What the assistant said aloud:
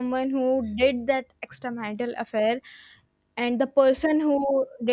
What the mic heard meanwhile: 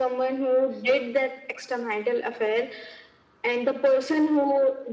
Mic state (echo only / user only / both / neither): echo only